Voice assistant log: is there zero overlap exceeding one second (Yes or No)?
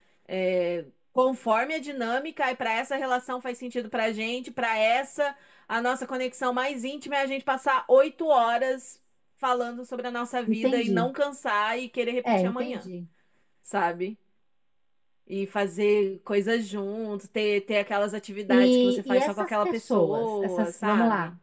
No